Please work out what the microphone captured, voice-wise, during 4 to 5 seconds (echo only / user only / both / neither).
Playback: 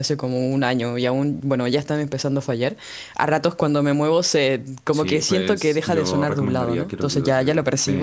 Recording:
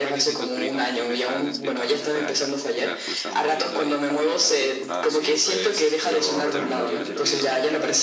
both